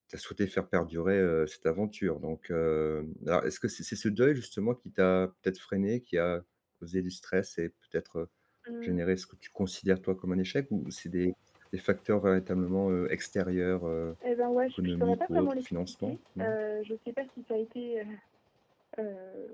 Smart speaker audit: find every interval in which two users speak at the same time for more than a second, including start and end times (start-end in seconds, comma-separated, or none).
14.8-16.6